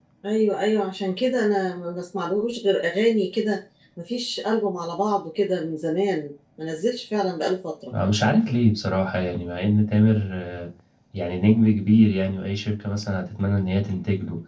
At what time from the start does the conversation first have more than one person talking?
none

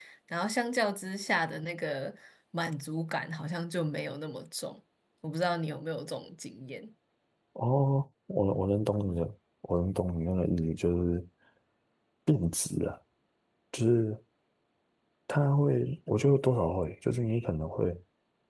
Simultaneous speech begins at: none

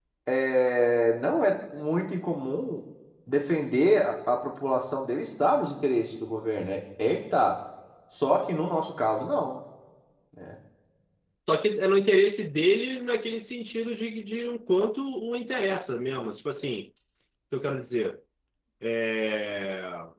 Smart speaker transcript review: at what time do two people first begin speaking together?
none

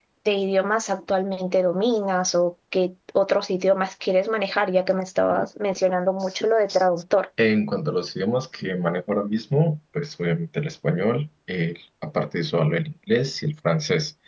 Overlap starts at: none

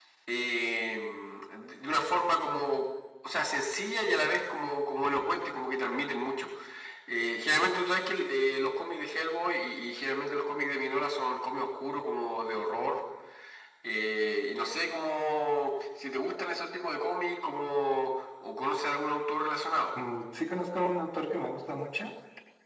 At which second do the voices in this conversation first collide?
none

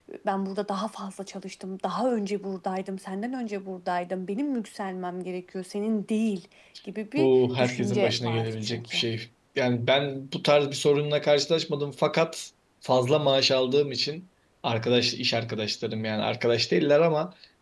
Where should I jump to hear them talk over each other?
7 s

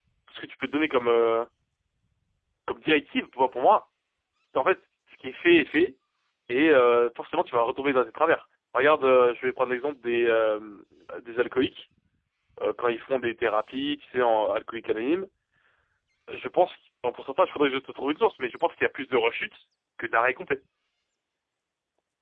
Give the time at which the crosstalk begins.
none

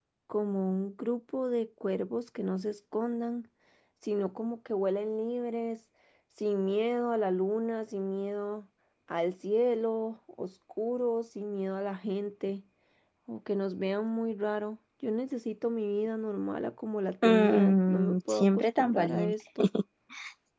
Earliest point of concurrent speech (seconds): 17 s

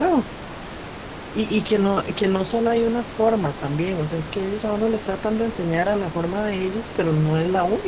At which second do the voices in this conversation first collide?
none

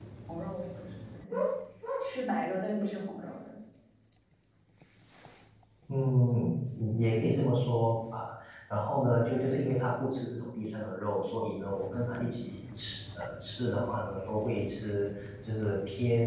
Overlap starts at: none

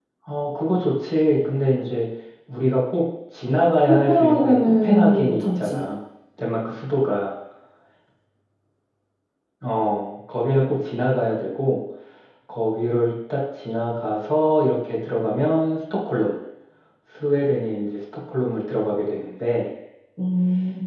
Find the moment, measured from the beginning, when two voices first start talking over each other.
4 s

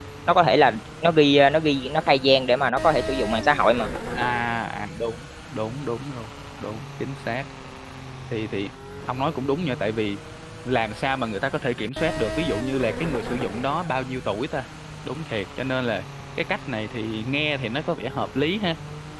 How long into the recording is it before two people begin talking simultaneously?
none

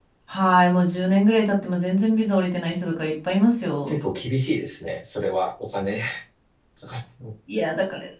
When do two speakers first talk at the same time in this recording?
none

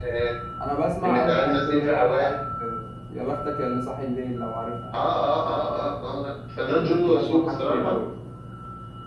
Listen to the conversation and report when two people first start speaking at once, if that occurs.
1 s

